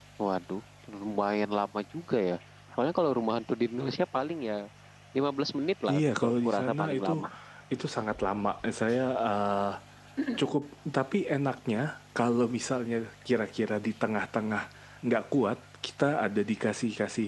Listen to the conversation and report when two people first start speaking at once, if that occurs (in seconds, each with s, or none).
5.9 s